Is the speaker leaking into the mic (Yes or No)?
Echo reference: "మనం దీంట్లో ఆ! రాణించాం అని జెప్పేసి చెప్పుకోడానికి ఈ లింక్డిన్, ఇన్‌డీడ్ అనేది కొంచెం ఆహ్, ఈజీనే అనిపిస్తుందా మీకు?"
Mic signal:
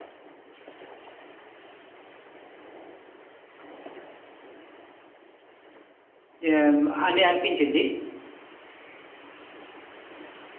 No